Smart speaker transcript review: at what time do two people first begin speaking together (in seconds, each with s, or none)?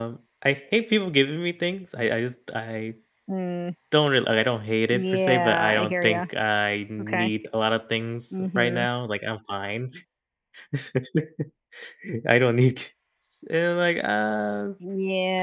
4.9 s